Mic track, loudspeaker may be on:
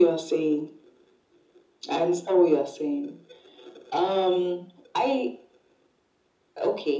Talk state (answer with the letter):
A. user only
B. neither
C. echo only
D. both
C